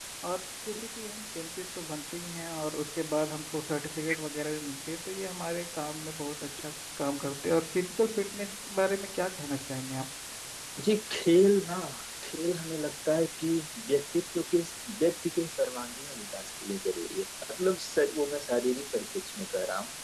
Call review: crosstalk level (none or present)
none